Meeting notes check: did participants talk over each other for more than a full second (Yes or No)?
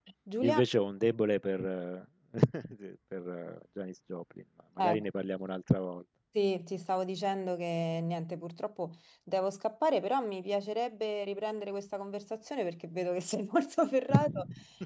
No